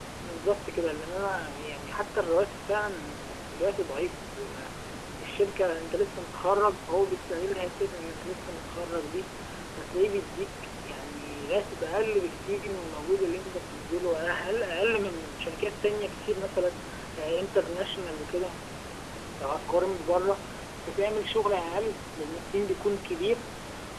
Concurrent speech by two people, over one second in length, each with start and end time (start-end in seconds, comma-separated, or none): none